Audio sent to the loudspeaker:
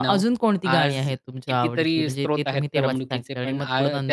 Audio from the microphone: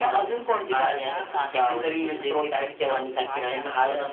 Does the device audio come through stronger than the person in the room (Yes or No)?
Yes